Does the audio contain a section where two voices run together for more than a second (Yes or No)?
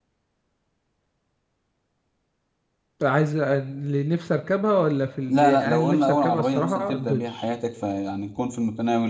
Yes